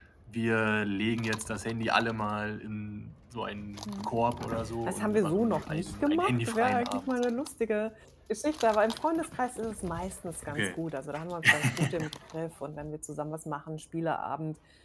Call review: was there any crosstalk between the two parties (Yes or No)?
Yes